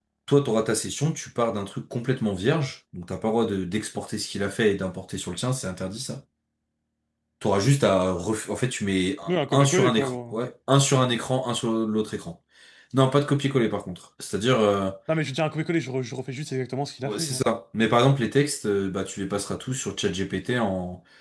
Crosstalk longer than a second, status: present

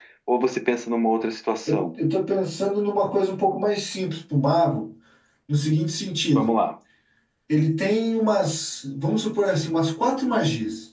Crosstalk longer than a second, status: none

